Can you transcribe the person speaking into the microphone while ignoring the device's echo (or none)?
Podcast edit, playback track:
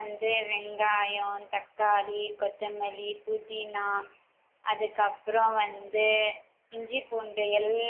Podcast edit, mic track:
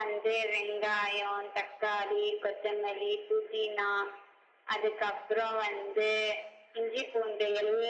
none